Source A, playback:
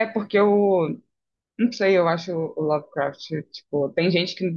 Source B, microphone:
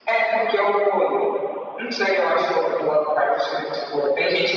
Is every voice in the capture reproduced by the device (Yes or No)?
Yes